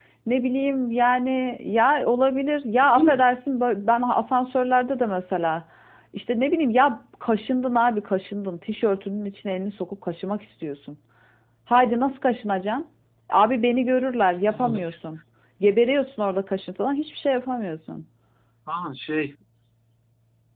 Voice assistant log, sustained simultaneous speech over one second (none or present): none